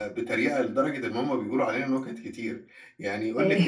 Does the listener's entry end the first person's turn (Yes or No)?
No